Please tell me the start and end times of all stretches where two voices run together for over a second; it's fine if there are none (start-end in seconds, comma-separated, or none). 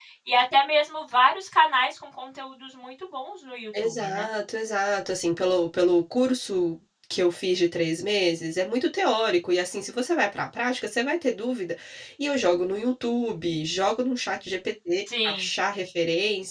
none